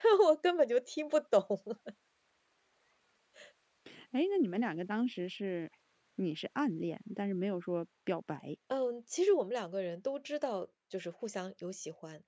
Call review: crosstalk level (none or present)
none